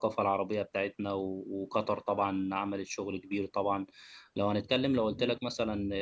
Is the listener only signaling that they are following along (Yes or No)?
Yes